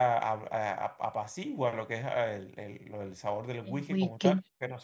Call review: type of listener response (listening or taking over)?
listening